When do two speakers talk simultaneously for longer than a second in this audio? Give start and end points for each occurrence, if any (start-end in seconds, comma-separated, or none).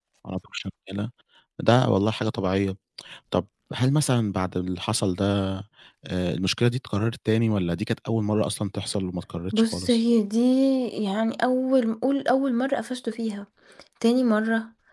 none